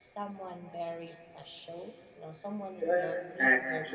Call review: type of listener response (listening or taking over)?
taking over